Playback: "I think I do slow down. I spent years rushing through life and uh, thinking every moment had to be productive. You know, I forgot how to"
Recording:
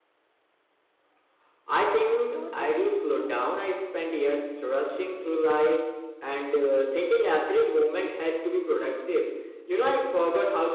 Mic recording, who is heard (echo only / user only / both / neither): both